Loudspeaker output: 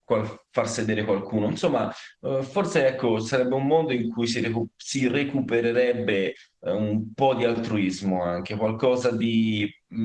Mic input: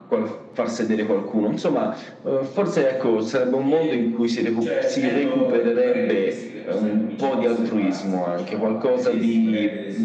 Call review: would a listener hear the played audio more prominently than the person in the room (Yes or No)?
Yes